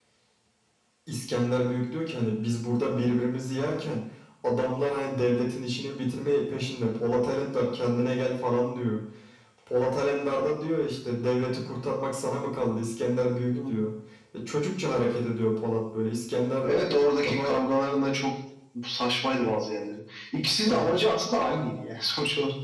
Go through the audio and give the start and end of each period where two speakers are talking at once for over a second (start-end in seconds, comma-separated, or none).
none